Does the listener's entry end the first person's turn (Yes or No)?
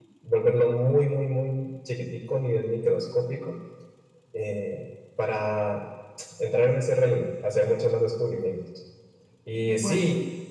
No